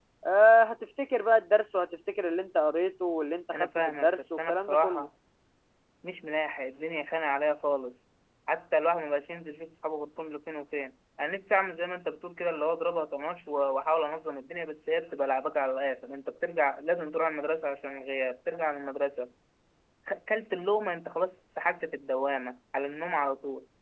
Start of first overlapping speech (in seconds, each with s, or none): 3.5 s